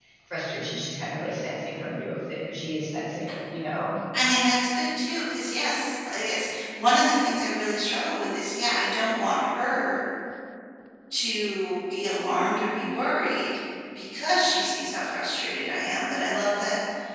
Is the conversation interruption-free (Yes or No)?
Yes